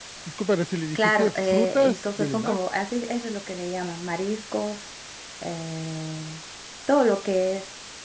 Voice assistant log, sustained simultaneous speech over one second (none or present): present